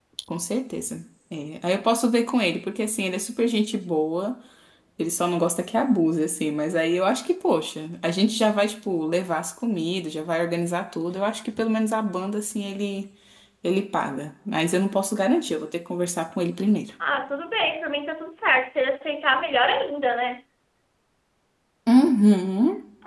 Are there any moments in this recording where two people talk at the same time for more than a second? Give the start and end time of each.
none

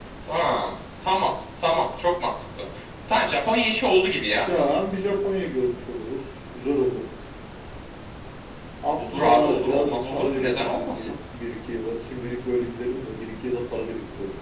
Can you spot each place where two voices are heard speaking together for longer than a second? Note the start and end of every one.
9.0-11.1

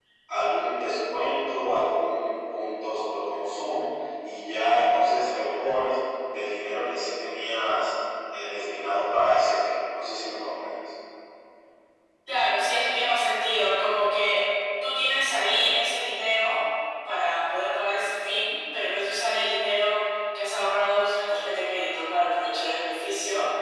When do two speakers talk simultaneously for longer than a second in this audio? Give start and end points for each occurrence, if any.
none

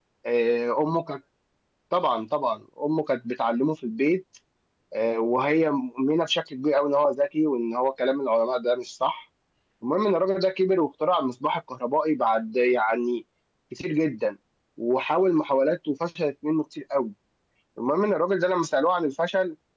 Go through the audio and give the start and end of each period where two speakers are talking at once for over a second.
none

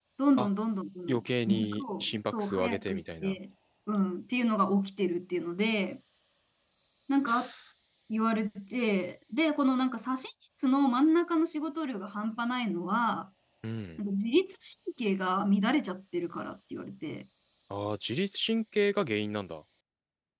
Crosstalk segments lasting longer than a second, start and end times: 1.1-3.4

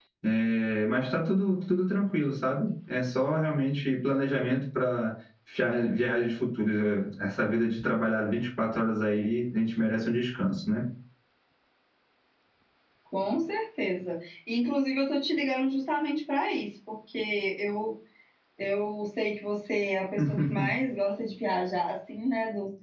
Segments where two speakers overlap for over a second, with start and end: none

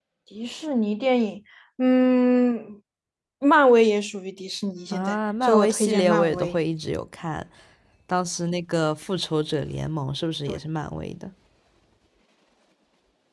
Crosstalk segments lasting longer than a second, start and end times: 4.9-6.6

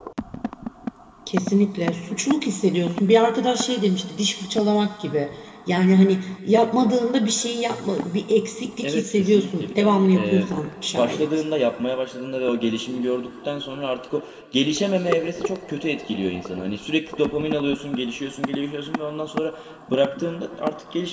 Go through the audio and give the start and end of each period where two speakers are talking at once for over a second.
8.8-10.4

